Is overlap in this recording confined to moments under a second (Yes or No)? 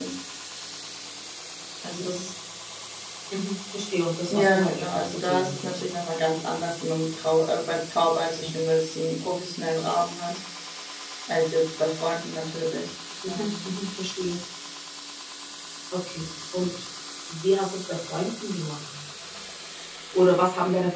No